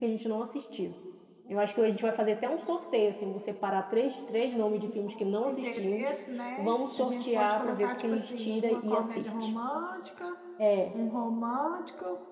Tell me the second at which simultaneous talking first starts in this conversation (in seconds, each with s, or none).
4.8 s